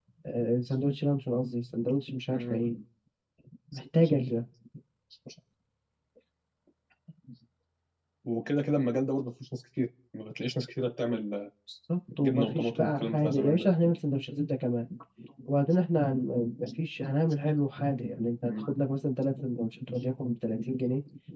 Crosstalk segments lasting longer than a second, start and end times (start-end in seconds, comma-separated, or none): 12.2-13.7